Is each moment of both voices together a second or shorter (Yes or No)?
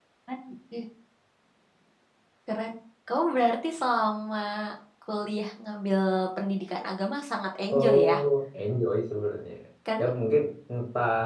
Yes